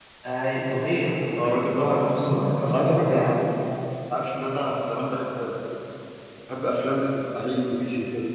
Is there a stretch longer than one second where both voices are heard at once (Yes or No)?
Yes